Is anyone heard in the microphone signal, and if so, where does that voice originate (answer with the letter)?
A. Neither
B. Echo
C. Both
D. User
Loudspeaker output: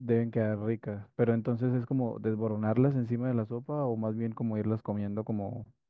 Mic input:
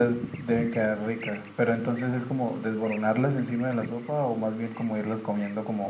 B